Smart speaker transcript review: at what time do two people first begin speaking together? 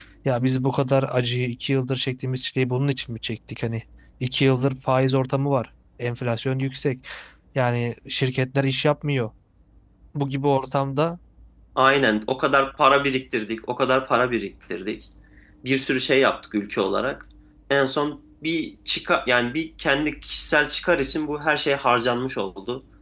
none

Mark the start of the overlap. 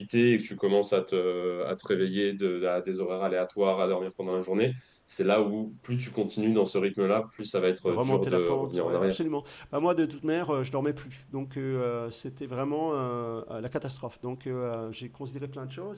7.9 s

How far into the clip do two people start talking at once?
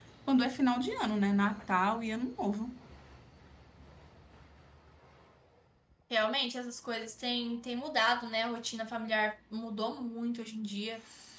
none

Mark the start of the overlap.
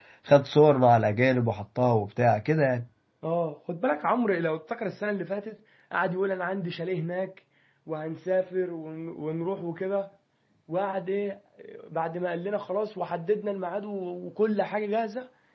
none

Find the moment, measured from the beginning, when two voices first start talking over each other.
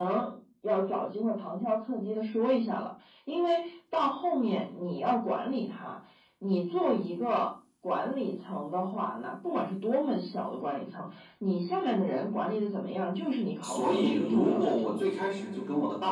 13.6 s

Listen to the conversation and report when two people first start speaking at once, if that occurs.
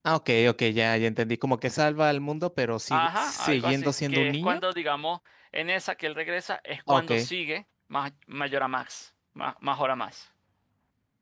2.9 s

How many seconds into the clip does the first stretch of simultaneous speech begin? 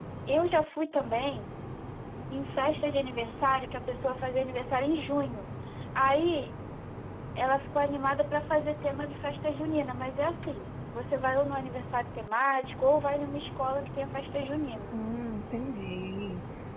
none

